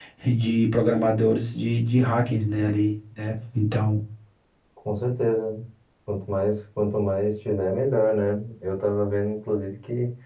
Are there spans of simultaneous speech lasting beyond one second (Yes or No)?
No